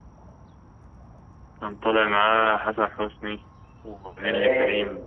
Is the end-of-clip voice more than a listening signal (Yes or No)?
Yes